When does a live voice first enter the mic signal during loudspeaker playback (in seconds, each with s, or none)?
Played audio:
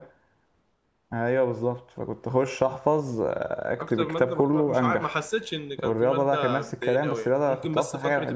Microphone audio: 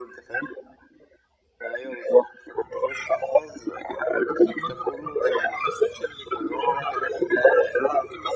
none